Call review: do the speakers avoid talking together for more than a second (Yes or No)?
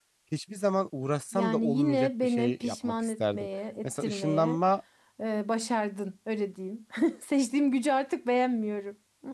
No